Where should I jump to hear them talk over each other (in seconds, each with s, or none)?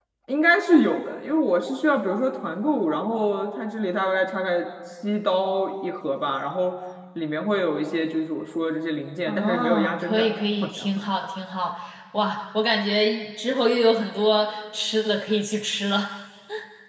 9.3 s